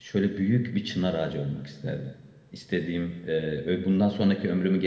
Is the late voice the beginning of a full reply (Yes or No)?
No